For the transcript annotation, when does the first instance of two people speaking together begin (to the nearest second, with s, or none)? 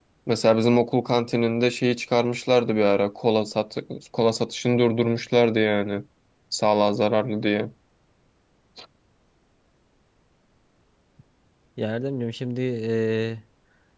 none